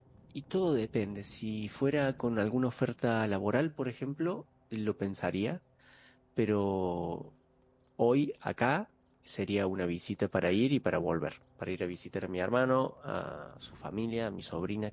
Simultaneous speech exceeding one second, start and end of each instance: none

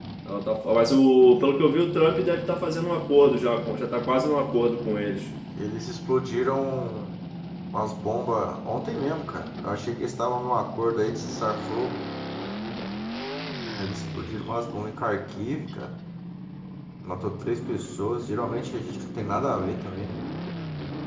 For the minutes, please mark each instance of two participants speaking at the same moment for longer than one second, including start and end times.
none

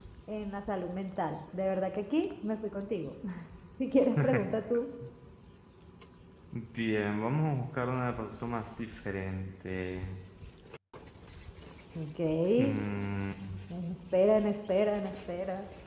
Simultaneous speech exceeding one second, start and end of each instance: none

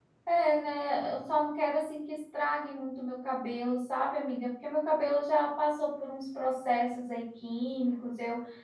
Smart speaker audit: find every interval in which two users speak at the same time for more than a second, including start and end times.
none

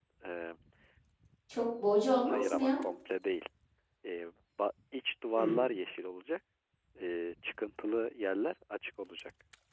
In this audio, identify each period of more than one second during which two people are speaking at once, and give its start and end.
none

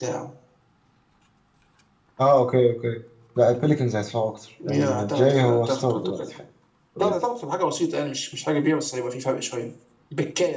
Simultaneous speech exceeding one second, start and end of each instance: 4.7-6.2

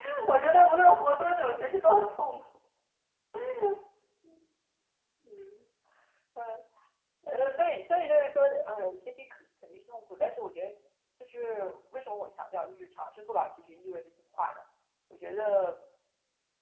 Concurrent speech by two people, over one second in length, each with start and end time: none

